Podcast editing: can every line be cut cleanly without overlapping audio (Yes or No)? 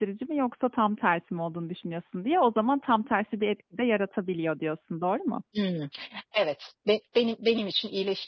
Yes